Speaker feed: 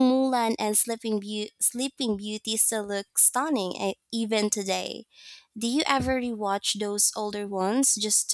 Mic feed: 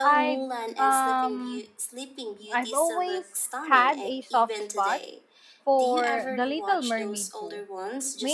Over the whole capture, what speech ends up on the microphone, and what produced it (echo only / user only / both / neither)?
both